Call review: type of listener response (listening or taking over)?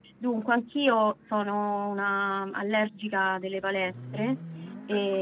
listening